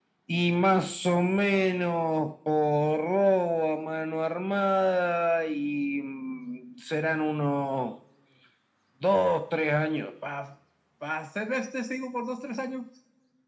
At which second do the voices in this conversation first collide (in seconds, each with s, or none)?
none